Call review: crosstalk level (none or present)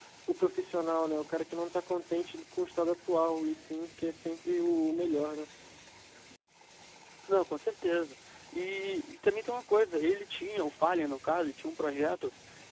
none